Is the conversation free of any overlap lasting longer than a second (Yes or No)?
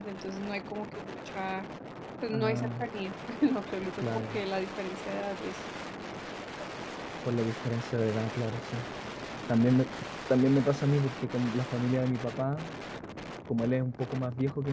Yes